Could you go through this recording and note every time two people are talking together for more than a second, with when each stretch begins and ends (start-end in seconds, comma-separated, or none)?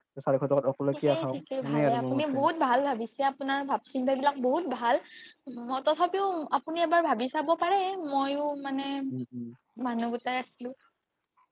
0.9-2.4